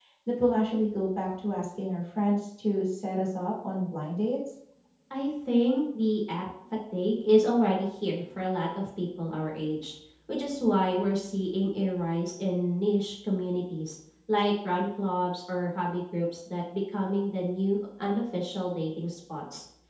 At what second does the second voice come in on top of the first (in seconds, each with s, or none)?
none